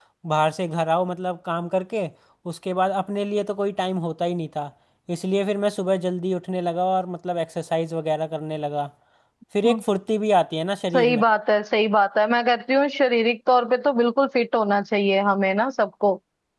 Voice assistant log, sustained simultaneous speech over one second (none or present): none